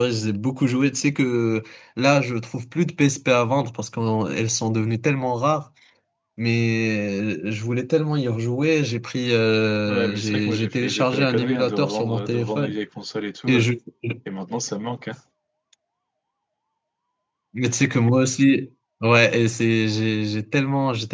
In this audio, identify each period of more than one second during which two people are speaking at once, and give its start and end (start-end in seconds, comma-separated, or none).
9.9-12.8